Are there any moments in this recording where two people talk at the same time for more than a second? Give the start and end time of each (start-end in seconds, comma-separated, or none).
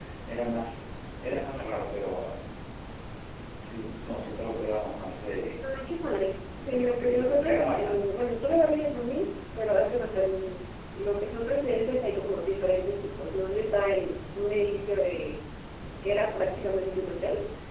6.7-8.0